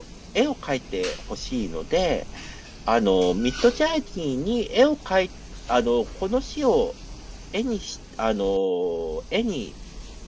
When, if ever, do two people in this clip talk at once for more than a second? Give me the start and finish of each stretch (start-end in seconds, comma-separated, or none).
none